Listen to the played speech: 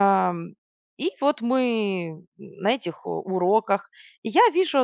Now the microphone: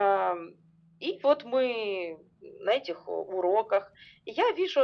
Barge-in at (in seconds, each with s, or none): none